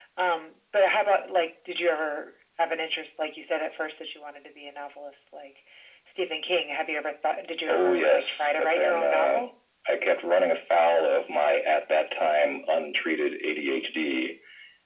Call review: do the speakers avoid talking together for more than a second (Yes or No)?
No